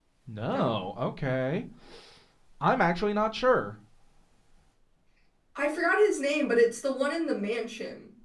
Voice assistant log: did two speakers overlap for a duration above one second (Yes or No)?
No